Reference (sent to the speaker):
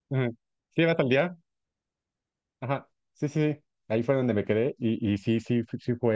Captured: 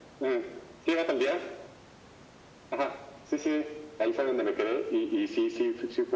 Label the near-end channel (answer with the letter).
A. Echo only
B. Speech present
A